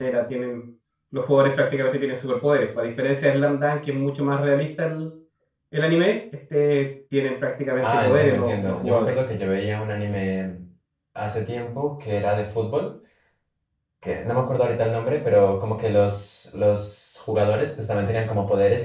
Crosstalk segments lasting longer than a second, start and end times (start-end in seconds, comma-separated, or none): 7.8-9.1